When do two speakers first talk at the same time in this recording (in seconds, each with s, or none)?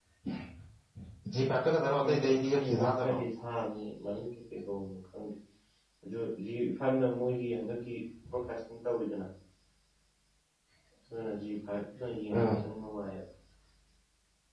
1.8 s